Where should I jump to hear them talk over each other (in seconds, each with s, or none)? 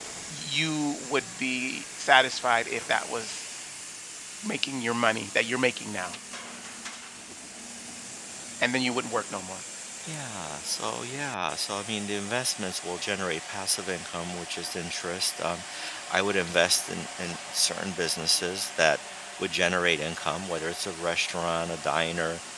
none